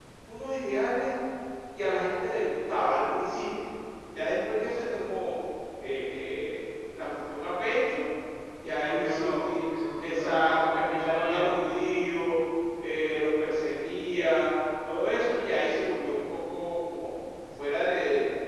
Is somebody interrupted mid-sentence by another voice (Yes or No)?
Yes